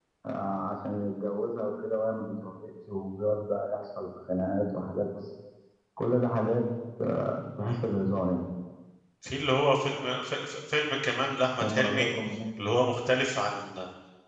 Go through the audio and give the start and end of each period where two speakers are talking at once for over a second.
none

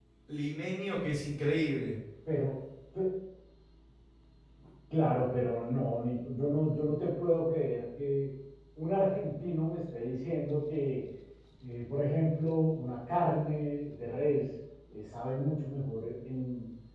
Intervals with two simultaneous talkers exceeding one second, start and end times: none

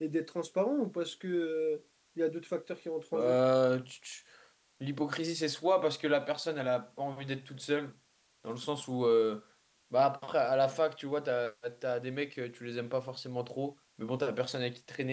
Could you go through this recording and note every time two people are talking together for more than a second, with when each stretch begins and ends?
none

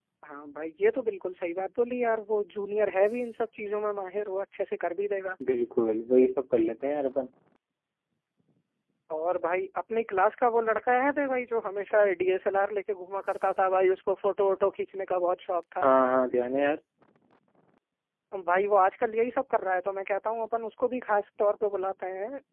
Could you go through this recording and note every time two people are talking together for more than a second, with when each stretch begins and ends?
none

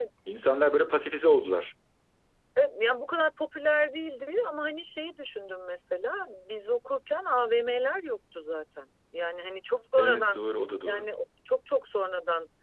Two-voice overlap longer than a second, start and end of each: none

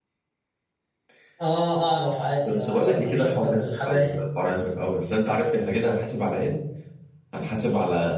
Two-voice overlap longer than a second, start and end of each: 2.4-4.0

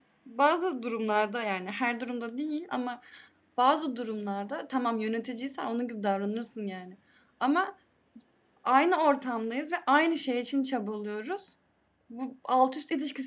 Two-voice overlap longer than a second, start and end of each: none

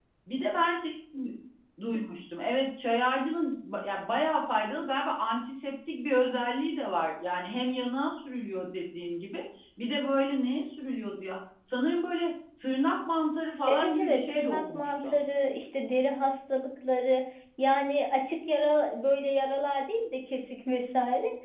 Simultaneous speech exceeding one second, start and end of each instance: 13.7-15.2

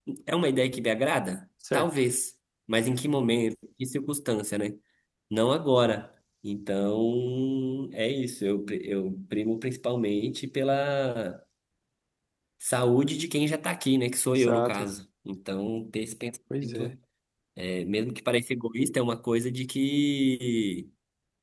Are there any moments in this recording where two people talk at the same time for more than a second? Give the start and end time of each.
none

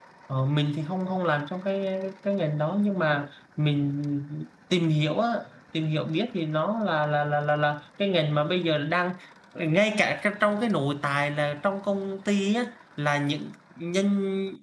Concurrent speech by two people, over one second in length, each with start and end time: none

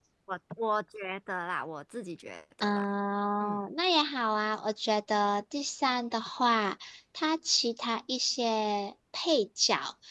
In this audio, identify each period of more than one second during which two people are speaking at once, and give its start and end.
none

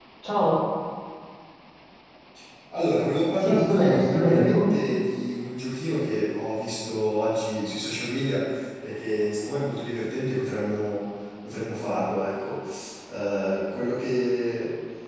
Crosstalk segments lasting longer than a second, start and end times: 3.4-4.7

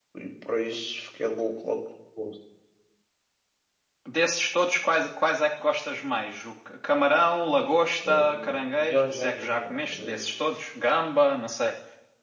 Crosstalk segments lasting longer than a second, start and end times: 8.9-10.3

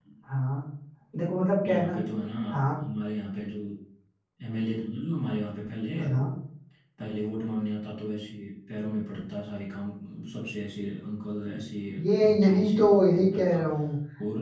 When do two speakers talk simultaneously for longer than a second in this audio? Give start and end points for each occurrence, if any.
12.2-13.6

